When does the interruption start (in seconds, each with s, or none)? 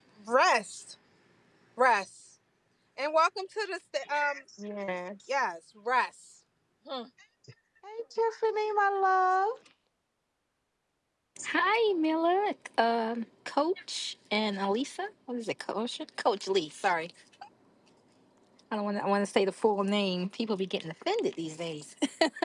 none